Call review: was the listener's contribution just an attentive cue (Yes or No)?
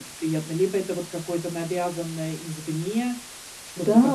No